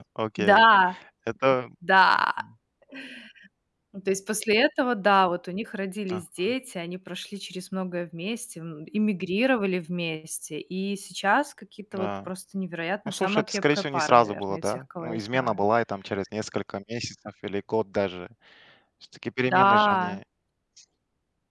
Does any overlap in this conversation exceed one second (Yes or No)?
Yes